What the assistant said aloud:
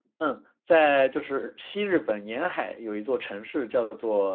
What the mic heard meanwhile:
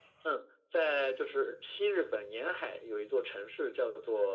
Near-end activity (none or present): none